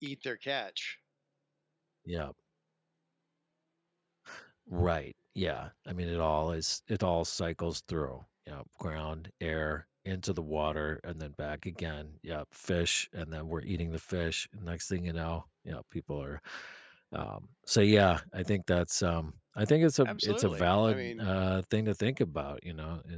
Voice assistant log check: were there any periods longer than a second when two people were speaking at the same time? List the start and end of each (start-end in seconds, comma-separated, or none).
20.1-21.3